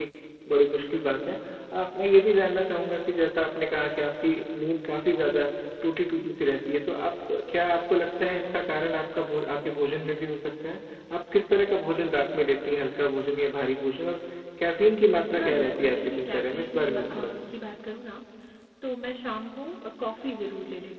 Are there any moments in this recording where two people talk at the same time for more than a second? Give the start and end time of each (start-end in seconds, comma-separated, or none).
15.3-17.5